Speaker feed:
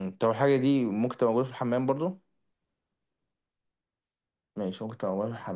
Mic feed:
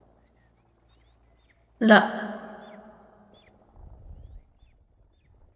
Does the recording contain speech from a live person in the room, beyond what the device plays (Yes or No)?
Yes